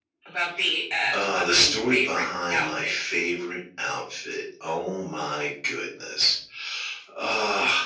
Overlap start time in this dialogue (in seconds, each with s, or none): 1.1 s